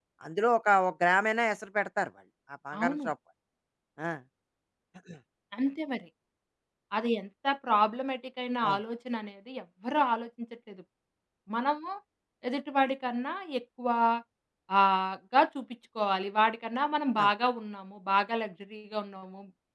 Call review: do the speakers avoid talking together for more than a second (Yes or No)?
Yes